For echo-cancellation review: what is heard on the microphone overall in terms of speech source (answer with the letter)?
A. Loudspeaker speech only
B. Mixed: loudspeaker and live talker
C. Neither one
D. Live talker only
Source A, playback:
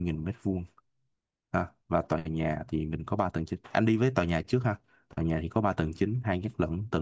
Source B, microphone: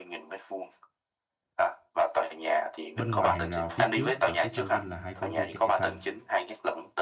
B